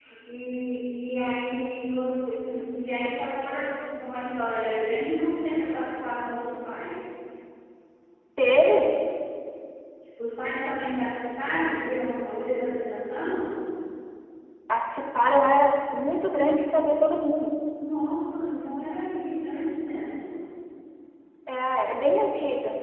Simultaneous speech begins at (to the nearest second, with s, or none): none